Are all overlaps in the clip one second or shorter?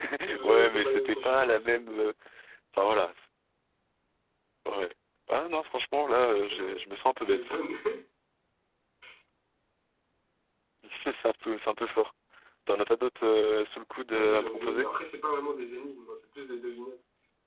No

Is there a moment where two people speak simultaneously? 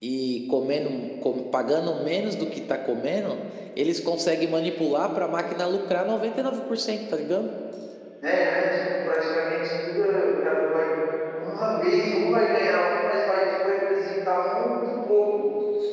No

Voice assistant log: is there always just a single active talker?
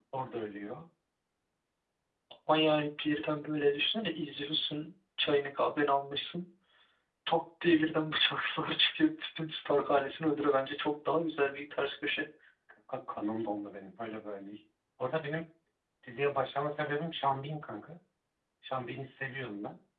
Yes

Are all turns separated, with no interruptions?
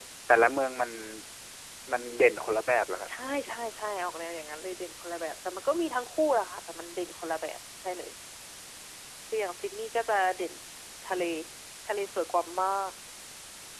Yes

